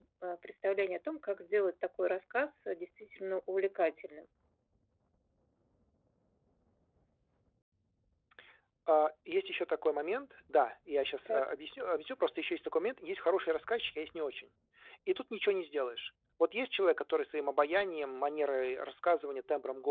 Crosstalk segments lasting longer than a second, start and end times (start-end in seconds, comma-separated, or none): none